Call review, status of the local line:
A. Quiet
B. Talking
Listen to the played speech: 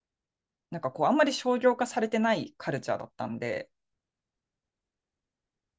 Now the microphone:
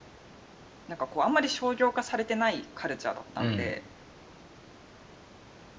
B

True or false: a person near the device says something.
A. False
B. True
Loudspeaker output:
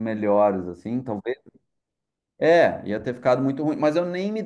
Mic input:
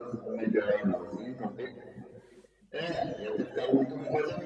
A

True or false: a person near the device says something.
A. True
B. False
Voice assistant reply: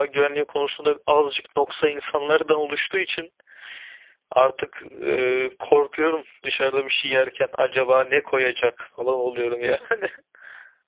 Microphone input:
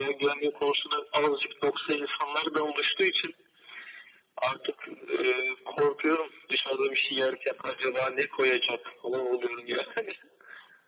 B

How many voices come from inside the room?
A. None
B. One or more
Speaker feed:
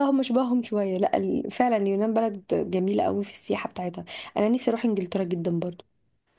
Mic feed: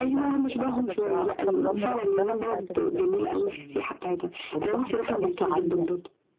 B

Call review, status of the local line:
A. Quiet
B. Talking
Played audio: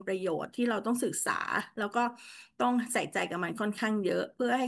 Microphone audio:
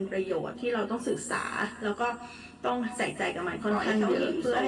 B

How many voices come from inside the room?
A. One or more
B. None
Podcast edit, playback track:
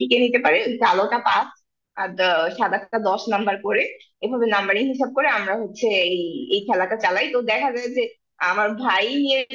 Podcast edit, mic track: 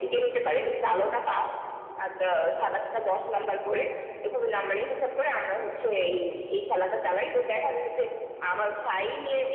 B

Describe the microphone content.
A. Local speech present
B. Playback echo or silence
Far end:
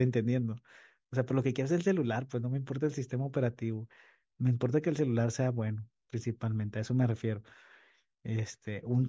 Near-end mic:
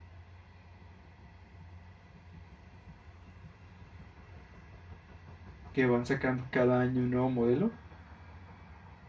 A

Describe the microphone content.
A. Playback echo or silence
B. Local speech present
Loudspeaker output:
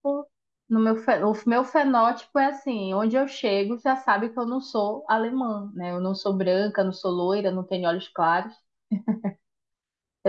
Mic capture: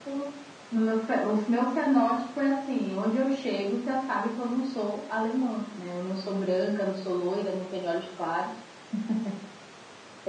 A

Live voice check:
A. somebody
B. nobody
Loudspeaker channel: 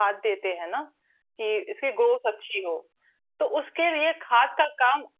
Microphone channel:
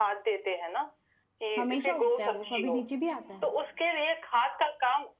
A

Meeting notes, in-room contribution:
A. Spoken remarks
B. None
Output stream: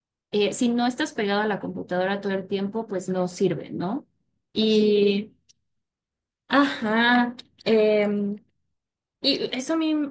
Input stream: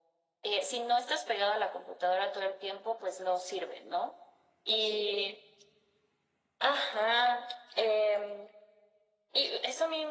B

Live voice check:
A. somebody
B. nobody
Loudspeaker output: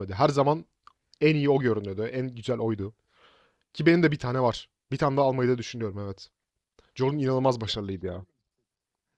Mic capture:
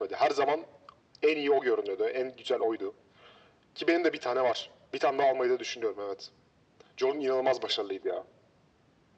B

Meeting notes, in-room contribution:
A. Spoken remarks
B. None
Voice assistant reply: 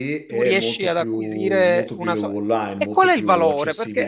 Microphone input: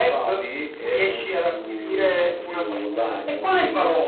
A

